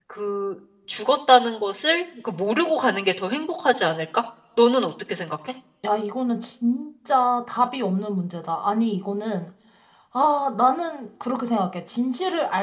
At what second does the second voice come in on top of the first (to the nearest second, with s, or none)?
none